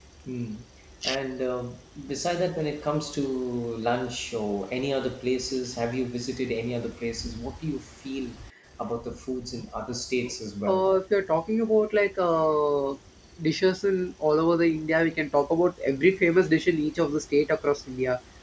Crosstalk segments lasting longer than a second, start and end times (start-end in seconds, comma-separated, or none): none